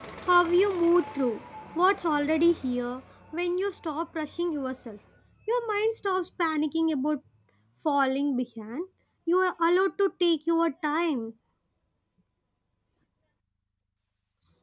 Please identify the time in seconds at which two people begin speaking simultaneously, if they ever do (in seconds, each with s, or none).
none